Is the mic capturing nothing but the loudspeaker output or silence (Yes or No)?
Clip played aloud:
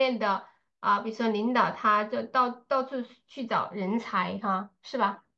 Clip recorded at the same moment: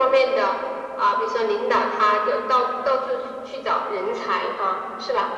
Yes